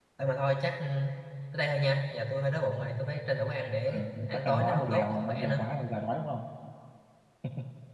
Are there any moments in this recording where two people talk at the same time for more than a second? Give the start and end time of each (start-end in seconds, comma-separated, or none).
3.9-5.6